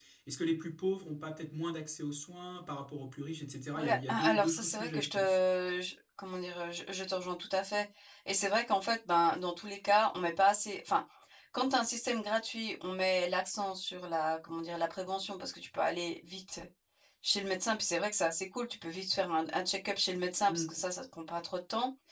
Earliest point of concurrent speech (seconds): 3.8 s

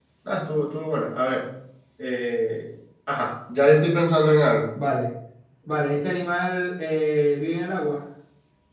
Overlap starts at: none

